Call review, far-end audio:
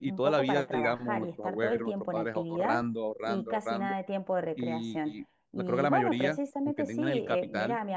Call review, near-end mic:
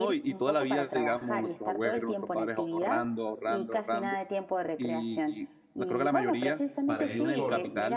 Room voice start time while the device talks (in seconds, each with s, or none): 6.8 s